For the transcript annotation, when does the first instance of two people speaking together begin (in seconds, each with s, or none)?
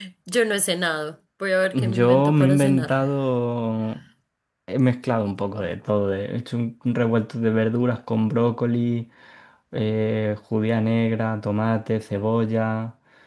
1.7 s